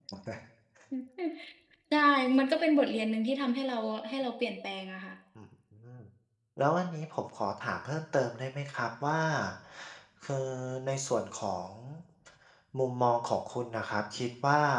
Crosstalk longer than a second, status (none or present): none